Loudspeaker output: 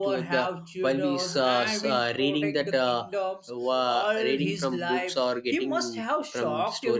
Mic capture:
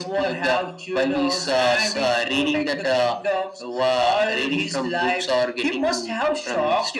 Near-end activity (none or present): none